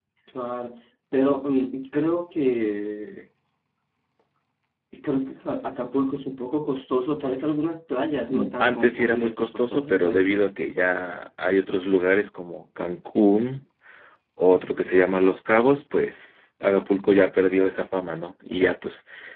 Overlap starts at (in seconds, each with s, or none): 8.3 s